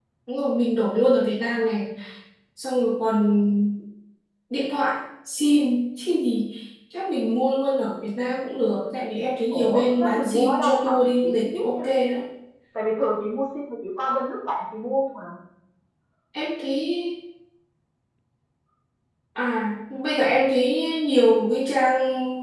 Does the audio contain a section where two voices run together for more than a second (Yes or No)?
Yes